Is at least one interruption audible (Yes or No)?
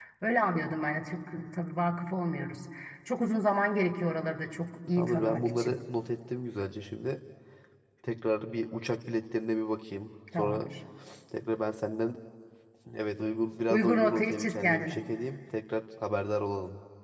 Yes